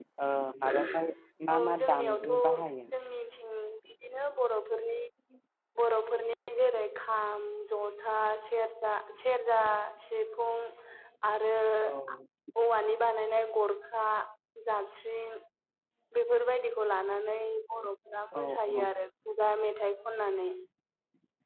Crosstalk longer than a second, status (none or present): present